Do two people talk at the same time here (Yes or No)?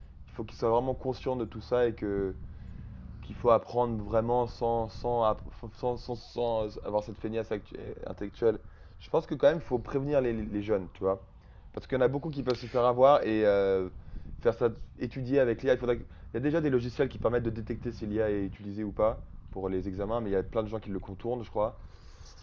No